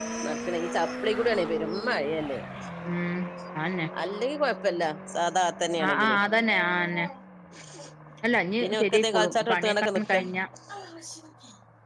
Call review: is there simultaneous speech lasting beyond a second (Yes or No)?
Yes